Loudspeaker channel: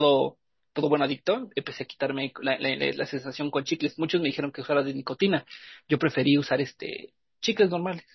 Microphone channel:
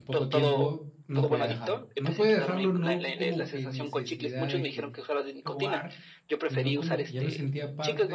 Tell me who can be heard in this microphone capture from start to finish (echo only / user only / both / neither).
both